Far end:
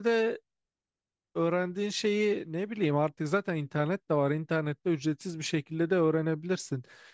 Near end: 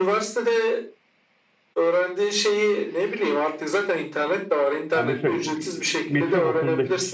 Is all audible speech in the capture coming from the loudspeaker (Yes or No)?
No